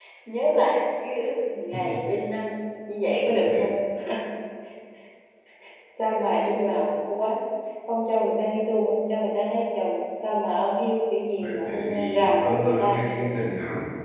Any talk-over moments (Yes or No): Yes